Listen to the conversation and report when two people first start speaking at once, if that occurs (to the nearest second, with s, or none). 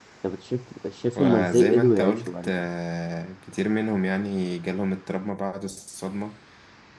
1 s